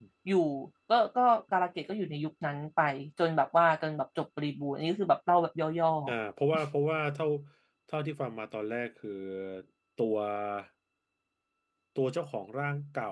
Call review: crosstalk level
none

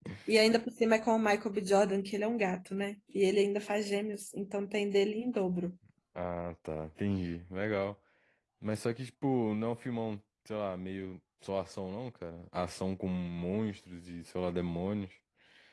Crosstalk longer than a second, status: none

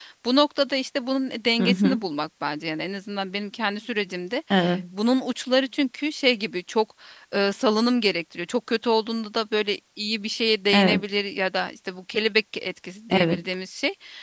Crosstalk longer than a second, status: none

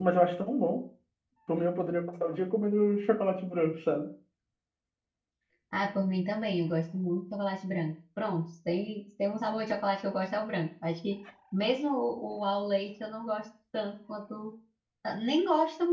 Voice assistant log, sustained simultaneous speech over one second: none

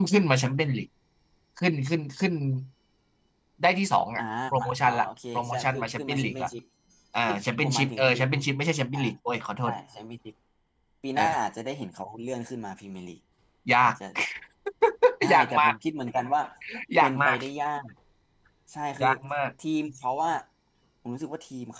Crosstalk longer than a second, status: present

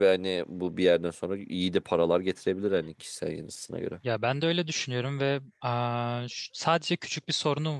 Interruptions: none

